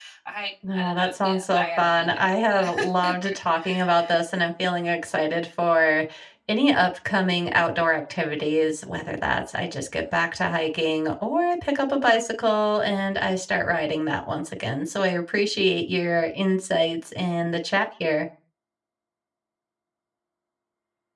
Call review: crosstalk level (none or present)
present